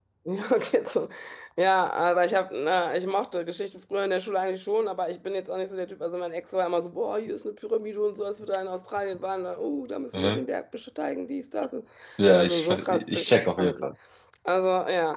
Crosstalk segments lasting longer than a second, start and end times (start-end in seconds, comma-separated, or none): 12.3-13.8